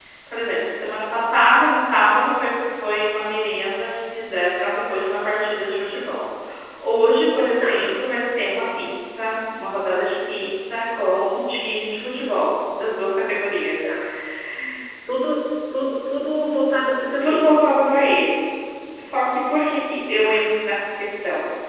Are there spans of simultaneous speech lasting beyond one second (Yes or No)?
No